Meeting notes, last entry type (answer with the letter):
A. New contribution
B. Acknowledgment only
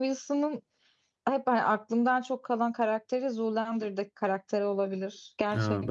A